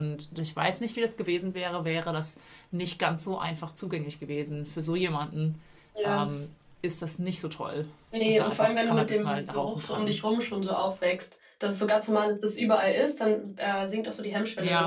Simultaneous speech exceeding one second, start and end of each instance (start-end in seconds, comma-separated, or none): 8.2-10.2